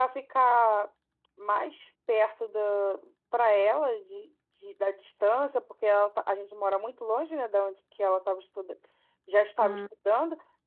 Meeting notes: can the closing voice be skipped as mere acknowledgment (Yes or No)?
Yes